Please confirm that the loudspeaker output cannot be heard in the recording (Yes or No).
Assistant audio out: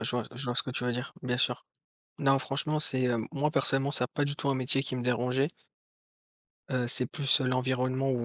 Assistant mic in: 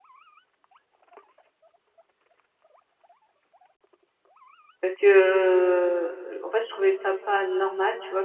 Yes